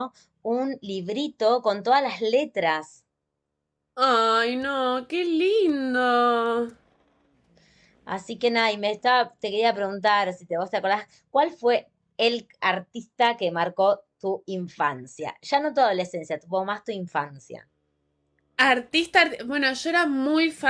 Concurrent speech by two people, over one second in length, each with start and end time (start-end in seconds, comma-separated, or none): none